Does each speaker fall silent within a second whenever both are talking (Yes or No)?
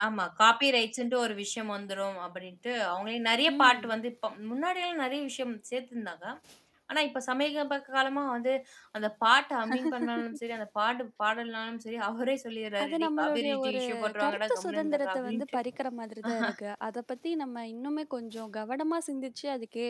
No